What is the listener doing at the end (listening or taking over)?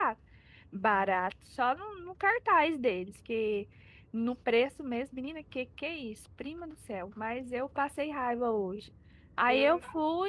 listening